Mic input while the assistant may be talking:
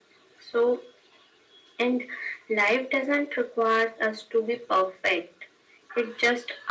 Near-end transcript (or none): none